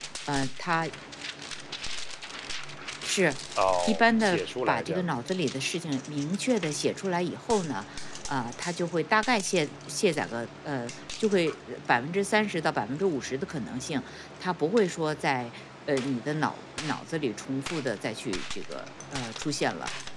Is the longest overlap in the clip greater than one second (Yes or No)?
Yes